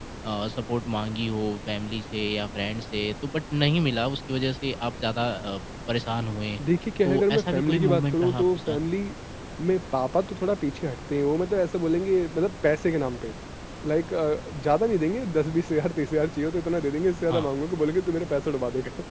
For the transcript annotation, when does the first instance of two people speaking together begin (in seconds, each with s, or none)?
7.0 s